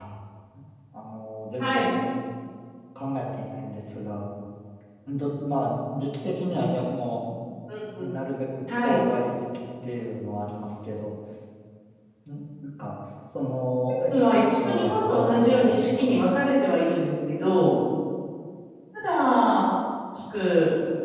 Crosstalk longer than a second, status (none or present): present